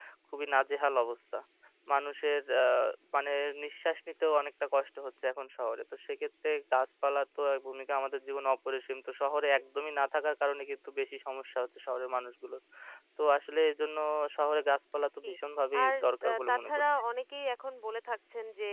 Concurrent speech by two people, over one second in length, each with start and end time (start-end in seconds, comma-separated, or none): 15.8-17.0